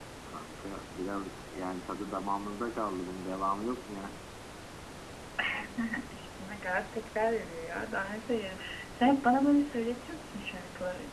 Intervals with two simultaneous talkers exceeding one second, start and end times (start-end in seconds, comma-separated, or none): none